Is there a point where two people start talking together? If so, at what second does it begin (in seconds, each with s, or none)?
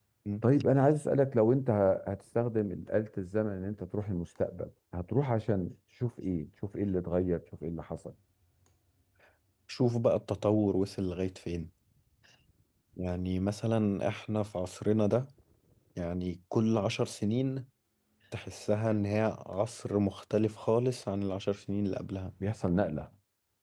none